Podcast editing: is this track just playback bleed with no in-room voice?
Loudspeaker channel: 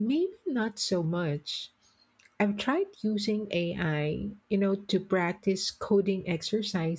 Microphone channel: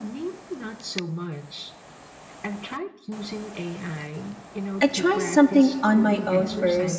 No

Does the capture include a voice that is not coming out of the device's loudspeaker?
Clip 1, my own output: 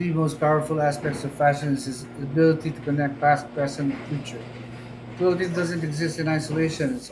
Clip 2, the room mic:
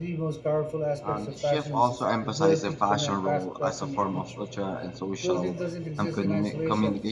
Yes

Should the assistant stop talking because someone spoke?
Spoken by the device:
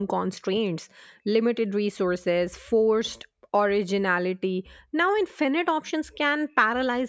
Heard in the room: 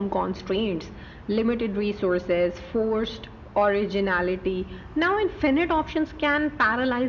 No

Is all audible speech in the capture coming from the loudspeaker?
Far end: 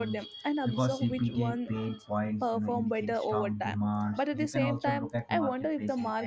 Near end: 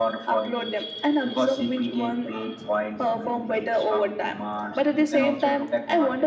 Yes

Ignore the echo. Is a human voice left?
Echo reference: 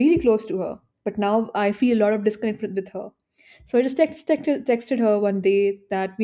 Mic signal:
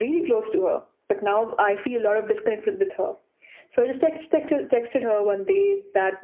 No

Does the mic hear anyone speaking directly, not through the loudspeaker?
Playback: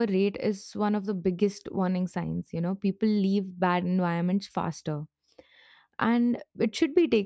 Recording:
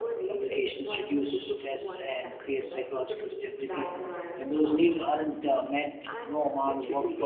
Yes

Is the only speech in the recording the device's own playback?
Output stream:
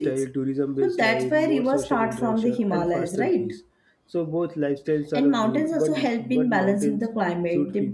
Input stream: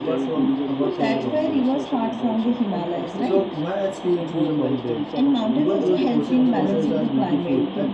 No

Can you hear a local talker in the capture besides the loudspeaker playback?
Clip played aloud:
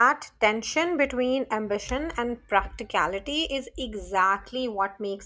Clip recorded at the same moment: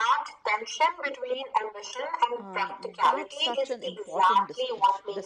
Yes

